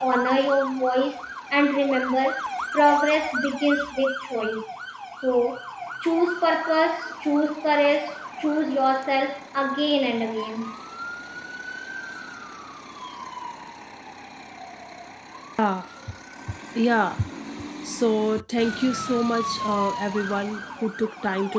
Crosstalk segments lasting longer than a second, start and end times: none

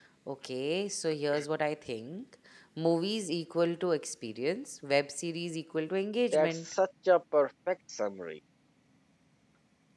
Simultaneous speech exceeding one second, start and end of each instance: none

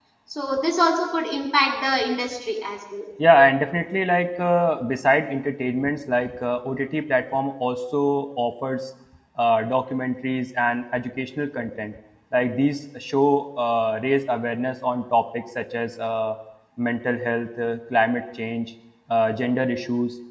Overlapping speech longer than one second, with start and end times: none

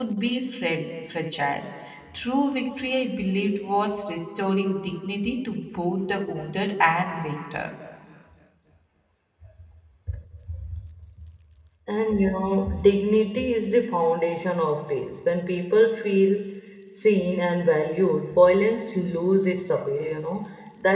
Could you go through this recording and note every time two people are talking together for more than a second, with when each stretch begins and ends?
none

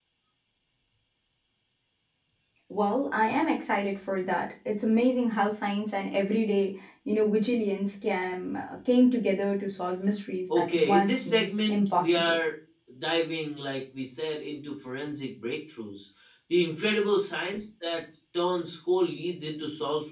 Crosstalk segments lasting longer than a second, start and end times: 10.6-12.4

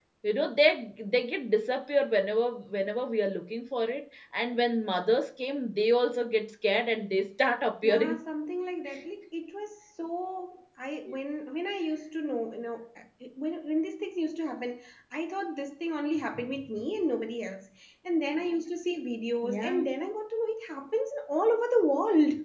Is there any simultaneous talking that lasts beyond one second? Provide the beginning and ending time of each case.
none

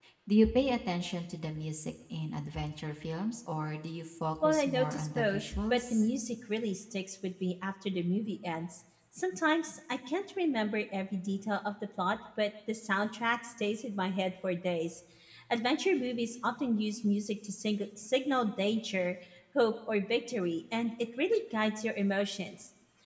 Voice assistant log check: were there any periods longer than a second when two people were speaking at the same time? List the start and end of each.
4.4-6.1

